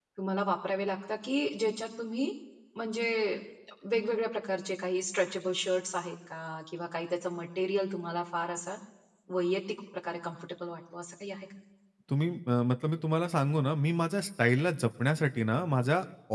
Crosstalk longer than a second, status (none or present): none